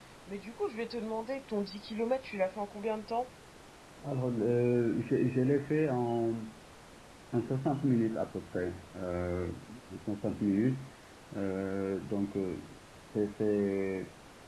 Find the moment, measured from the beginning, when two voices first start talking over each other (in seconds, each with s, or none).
none